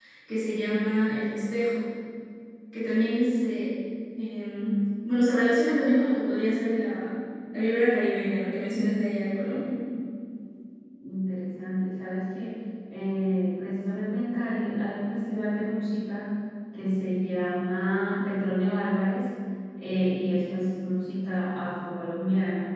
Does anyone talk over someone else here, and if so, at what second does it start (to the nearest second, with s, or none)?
none